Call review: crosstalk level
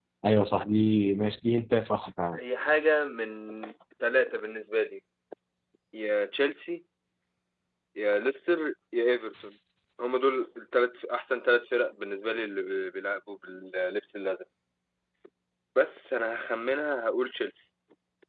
none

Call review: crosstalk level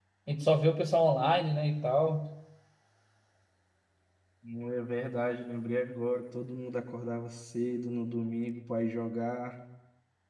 none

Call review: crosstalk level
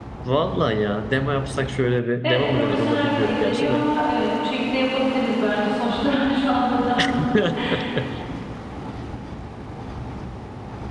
present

